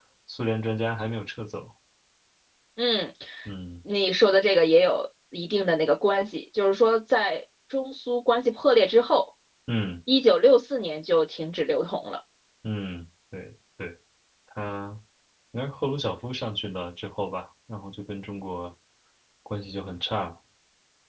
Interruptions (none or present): none